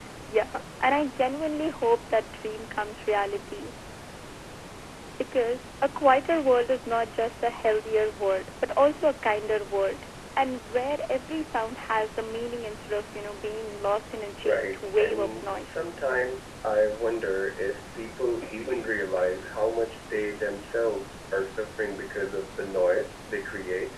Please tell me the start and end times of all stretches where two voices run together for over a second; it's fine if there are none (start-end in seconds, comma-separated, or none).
14.4-15.8